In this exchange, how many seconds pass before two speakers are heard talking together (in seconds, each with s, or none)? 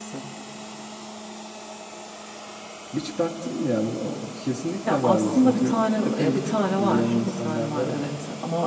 4.8 s